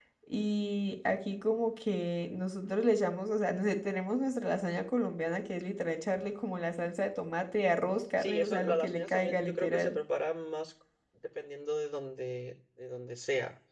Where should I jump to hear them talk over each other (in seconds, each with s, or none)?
8.2 s